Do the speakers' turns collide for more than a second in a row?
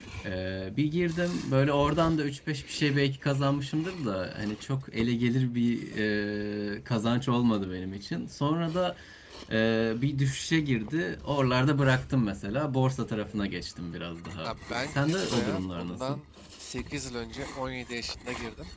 Yes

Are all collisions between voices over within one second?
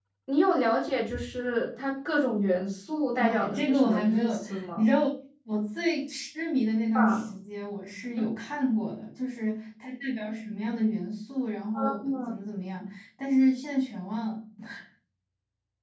No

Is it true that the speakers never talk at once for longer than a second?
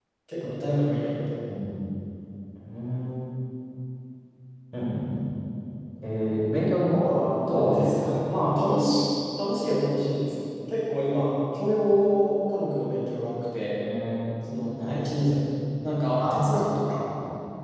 No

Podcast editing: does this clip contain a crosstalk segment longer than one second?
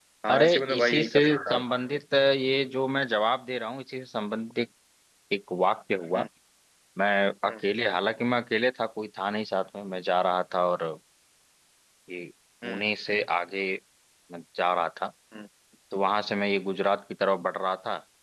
Yes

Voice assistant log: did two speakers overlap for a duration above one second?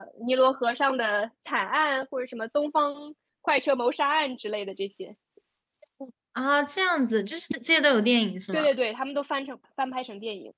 No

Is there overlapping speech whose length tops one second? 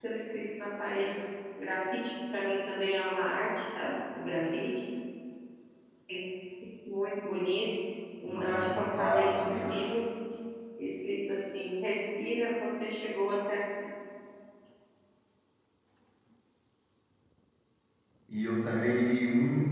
Yes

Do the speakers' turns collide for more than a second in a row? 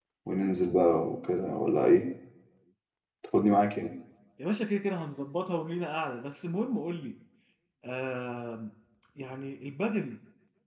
No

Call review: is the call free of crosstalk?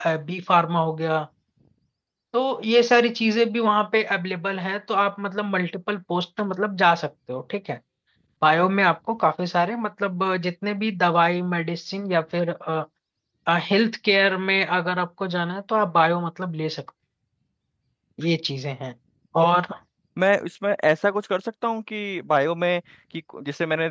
Yes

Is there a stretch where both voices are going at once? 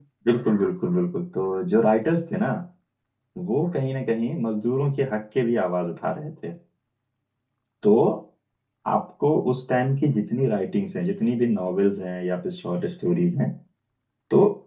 No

